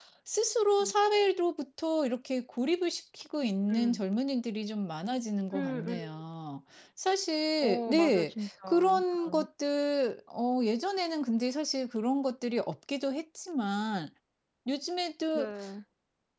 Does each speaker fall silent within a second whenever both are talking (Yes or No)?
No